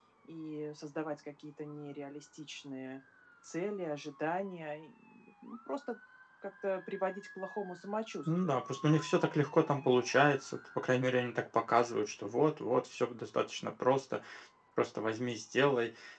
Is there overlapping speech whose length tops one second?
No

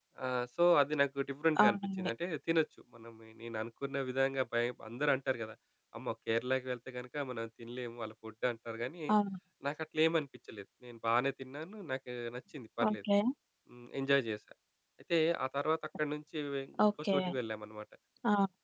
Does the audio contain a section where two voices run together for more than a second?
No

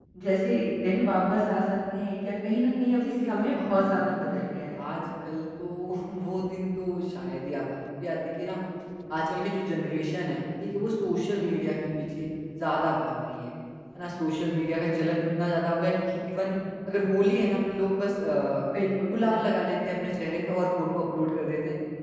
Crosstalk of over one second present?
Yes, from 3.0 s

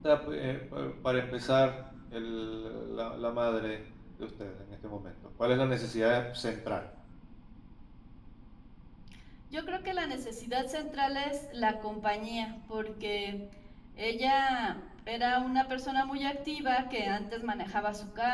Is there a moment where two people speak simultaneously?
No

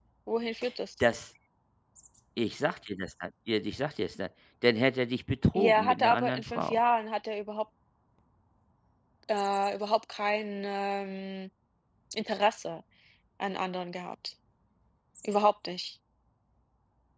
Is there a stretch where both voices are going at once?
Yes, from 5.5 s

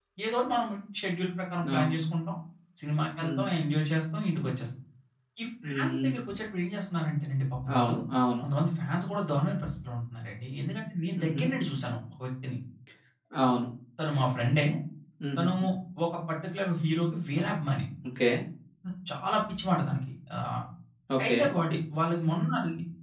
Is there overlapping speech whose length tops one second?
No

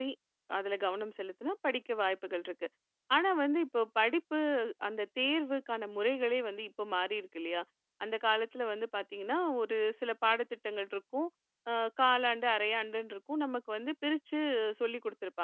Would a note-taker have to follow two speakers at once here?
No

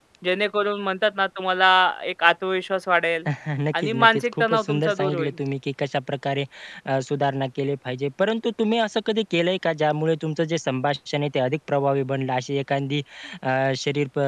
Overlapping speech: Yes, from 3.7 s

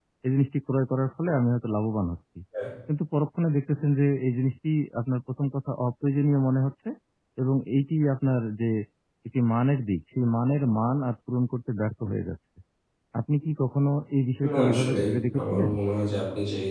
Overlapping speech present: Yes, from 14.4 s

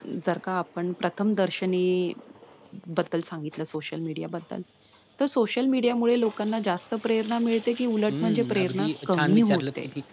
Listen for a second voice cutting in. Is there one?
Yes, from 8.1 s

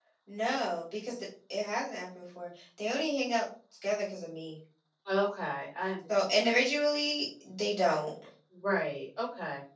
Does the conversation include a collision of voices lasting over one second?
No

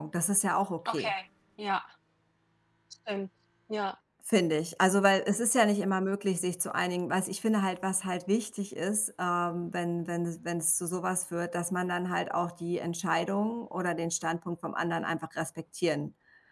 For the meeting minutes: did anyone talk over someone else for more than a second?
No

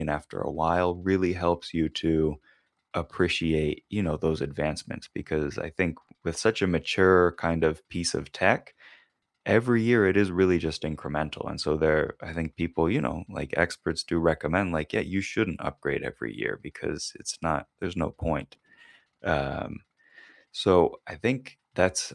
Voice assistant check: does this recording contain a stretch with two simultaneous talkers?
No

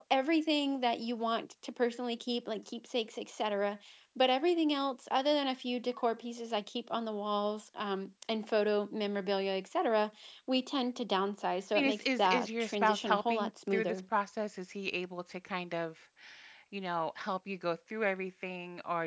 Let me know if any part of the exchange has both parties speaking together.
Yes, from 11.8 s

